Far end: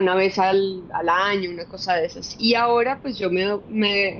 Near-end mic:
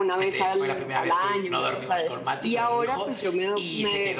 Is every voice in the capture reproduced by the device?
No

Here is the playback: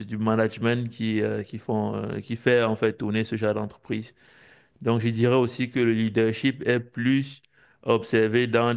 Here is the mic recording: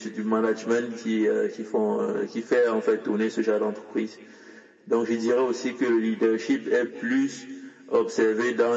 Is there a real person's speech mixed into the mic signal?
No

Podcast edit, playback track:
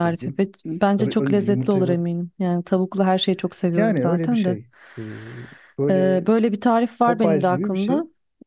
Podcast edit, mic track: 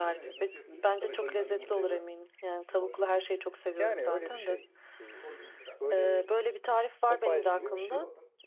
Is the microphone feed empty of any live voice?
No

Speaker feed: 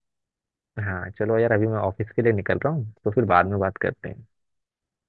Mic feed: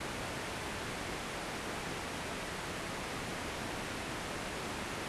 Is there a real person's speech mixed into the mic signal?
No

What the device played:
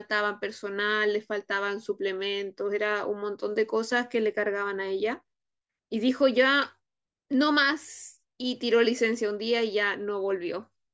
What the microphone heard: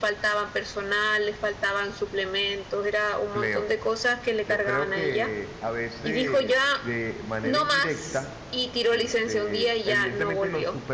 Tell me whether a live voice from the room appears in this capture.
Yes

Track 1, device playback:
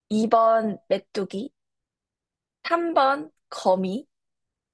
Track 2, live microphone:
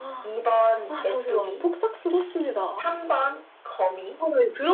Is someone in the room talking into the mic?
Yes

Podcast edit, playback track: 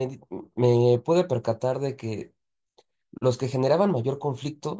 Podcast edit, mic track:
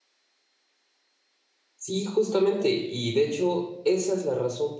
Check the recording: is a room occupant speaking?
Yes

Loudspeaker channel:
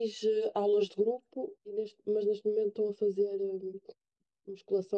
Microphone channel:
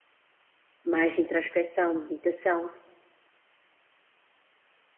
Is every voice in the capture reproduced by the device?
No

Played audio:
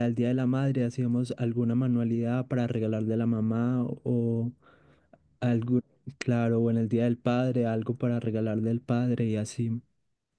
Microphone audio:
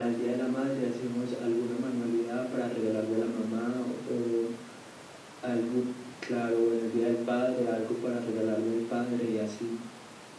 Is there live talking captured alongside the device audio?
No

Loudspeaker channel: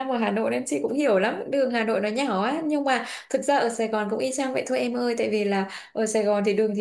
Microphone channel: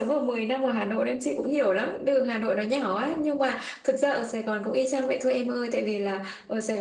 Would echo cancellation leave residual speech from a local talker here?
No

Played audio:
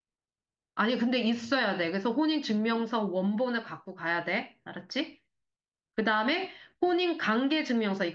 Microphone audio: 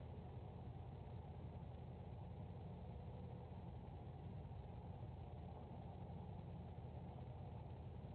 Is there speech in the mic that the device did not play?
No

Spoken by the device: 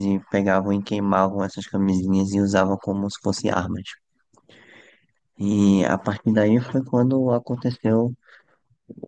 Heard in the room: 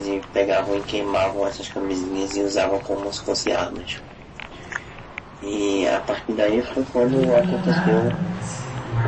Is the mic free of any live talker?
No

